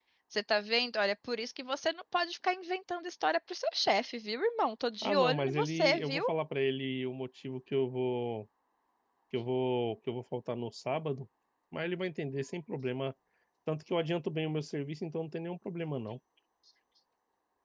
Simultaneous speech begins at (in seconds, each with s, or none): 5.0 s